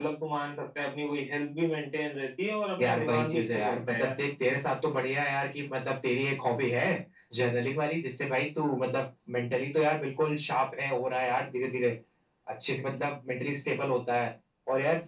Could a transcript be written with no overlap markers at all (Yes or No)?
No